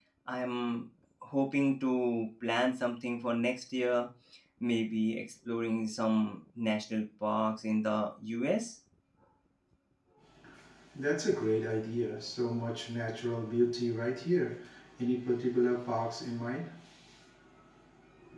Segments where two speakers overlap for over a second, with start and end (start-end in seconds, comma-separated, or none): none